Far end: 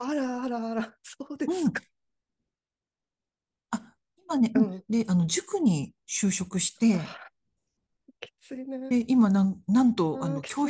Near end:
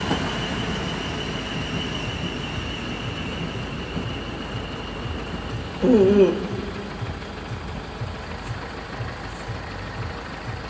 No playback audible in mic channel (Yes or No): Yes